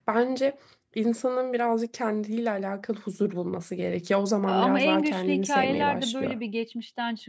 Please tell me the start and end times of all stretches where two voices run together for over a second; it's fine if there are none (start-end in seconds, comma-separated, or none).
4.5-6.3